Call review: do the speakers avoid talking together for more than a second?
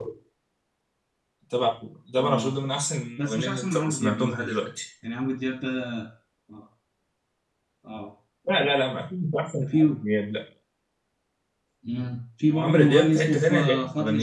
No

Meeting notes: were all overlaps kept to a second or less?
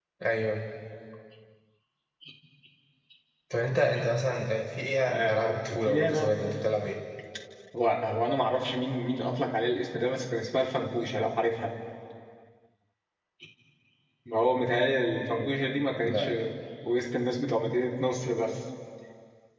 No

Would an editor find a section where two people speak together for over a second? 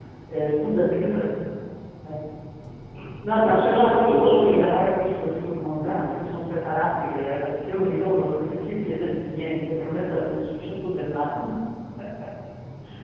Yes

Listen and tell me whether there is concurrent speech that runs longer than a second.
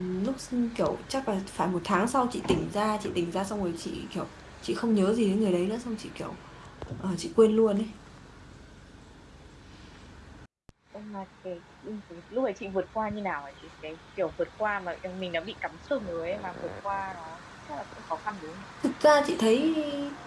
No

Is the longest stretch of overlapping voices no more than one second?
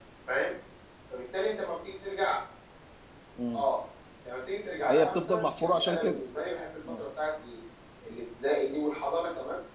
No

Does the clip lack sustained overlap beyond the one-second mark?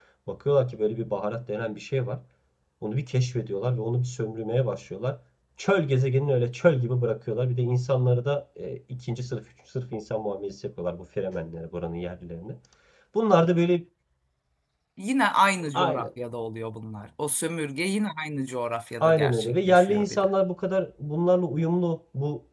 No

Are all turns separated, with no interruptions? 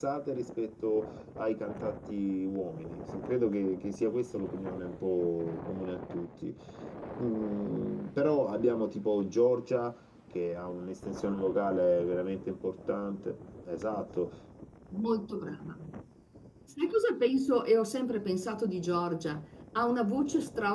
Yes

